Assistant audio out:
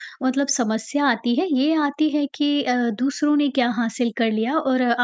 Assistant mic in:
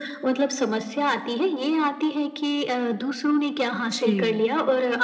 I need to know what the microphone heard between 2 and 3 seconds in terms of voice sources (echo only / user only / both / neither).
echo only